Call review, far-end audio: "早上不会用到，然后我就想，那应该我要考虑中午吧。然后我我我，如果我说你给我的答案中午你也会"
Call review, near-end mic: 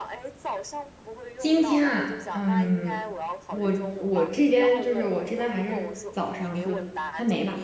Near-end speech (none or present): present